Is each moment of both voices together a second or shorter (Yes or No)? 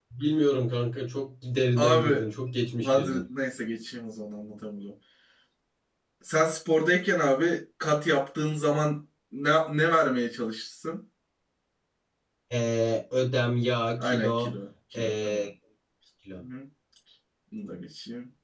Yes